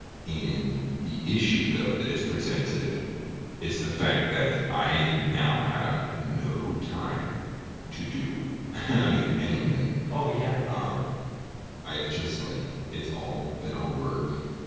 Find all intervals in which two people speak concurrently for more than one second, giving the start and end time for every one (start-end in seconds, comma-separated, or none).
none